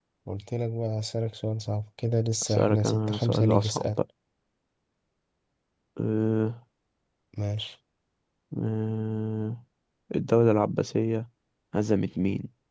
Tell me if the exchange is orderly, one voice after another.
No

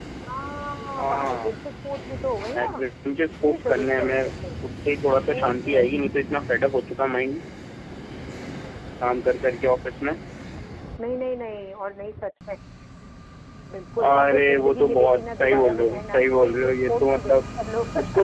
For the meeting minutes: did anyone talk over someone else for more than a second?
Yes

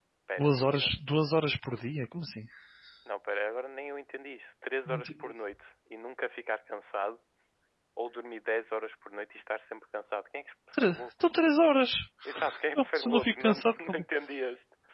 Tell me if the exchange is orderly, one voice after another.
No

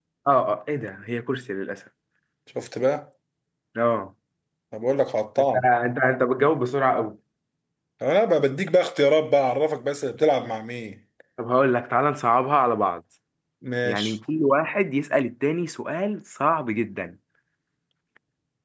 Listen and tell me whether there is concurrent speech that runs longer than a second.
No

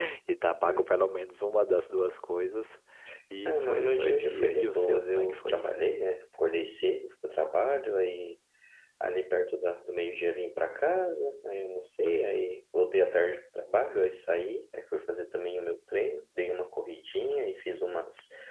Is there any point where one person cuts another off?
Yes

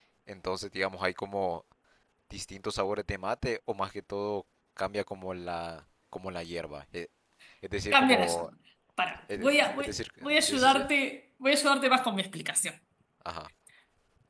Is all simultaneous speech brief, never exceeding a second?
No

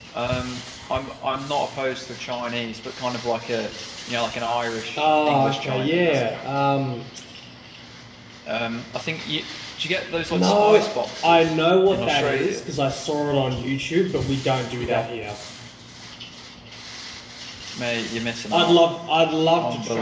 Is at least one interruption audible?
Yes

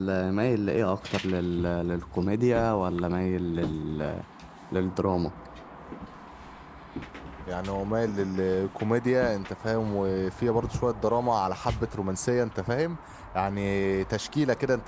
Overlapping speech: No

